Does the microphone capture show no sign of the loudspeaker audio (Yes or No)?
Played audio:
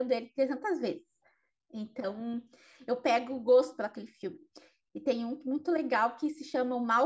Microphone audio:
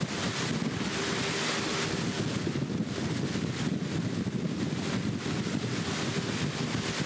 Yes